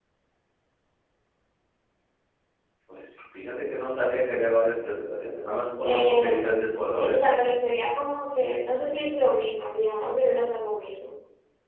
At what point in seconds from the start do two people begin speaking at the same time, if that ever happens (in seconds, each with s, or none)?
5.8 s